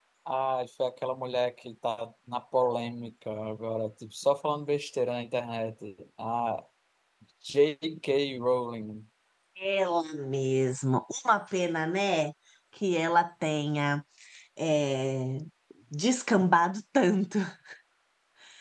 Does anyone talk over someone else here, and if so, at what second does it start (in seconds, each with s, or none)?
none